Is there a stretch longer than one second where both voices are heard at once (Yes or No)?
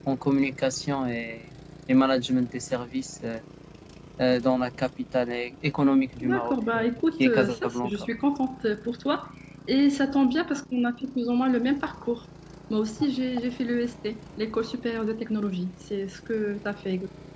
Yes